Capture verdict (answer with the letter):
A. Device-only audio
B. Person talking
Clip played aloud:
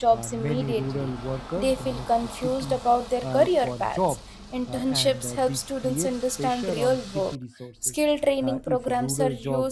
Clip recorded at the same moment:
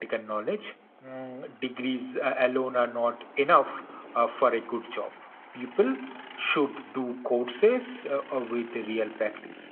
B